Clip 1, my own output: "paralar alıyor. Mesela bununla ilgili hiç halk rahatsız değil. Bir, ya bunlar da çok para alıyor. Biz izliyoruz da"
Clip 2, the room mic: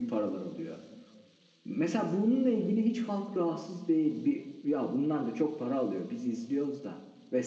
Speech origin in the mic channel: echo only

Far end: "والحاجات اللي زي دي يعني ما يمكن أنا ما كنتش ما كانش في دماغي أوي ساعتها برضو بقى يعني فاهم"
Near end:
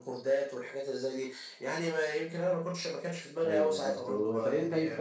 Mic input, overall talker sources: both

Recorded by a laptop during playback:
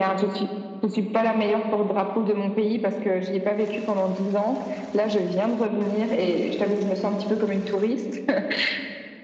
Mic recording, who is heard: echo only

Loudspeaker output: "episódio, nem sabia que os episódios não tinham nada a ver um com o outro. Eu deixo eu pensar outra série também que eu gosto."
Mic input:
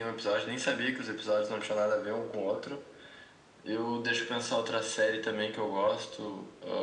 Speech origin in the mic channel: echo only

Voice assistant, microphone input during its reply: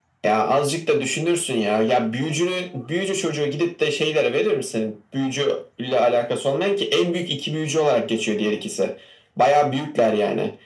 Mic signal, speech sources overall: echo only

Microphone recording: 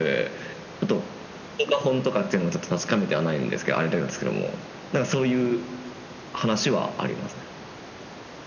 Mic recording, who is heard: echo only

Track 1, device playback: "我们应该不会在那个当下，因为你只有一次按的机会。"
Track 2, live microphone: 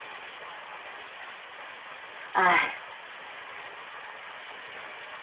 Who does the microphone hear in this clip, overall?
user only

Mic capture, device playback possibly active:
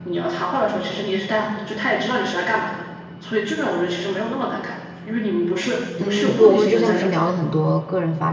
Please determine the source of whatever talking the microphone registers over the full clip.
both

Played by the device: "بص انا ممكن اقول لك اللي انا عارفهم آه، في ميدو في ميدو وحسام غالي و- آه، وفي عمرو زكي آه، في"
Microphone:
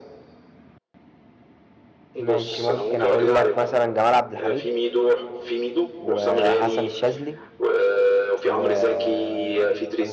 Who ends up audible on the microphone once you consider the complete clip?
both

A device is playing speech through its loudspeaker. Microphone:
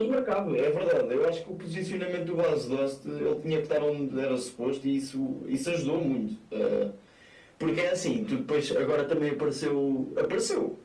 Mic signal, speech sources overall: echo only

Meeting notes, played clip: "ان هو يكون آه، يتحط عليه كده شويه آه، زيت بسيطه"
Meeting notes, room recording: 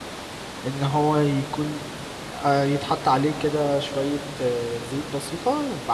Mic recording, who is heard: echo only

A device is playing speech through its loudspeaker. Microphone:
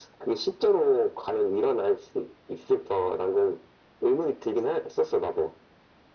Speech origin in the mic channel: echo only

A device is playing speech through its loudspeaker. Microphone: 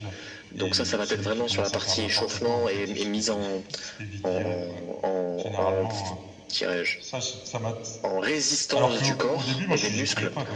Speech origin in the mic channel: both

